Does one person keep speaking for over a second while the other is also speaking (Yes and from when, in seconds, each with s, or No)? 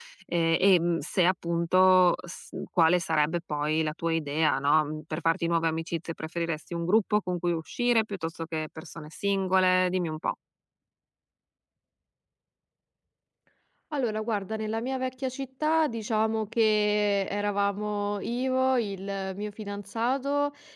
No